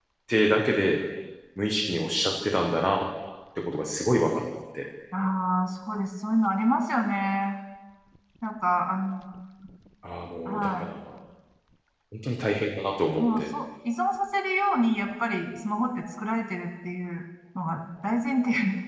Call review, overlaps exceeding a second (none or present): none